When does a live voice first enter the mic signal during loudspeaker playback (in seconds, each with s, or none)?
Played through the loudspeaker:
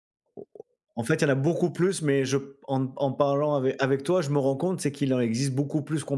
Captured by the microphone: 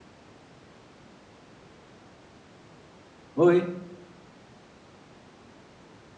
3.4 s